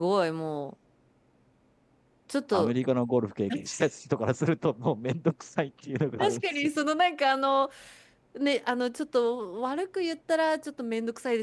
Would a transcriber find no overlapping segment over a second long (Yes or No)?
Yes